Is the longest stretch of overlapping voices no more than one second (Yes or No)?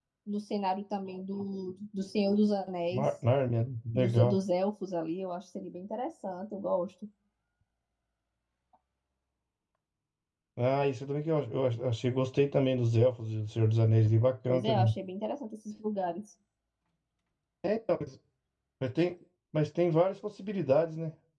Yes